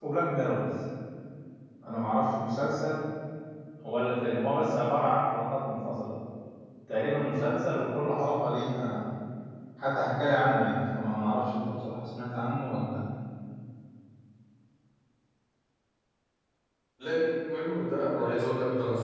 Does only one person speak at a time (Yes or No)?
Yes